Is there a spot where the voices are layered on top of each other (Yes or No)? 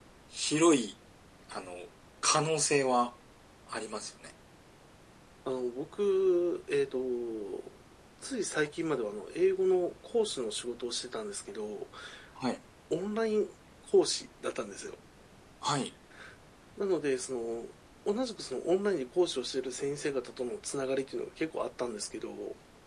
No